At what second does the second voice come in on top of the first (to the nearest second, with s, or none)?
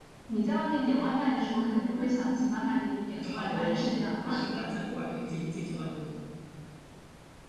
3 s